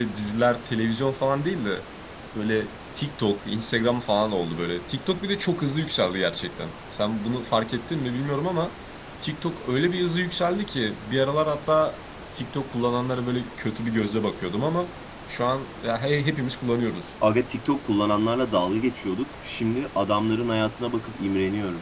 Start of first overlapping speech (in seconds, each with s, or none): none